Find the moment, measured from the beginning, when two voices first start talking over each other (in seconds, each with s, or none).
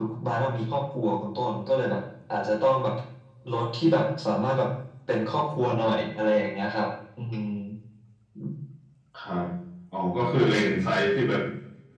none